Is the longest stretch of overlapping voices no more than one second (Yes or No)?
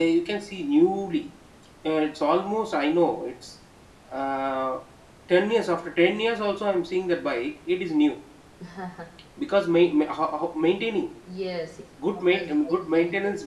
No